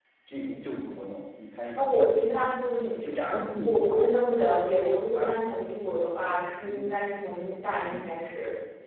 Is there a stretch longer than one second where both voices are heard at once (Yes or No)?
No